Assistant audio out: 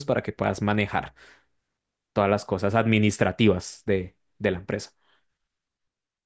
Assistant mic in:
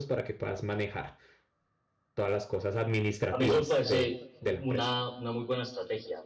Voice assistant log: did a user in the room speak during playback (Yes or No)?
Yes